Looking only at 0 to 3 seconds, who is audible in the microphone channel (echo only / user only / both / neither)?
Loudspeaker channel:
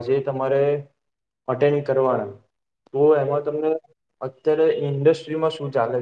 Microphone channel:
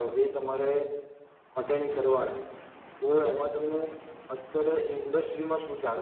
echo only